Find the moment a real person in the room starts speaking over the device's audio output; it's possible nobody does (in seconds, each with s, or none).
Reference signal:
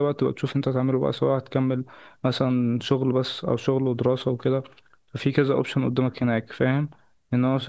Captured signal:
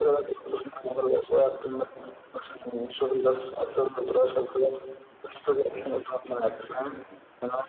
none